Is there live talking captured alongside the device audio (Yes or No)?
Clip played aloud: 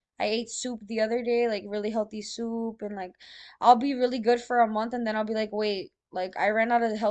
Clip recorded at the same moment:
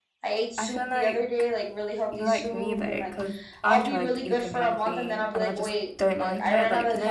Yes